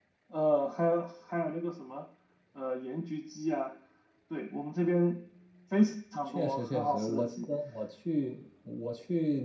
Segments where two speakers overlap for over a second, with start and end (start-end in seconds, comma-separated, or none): 6.2-7.5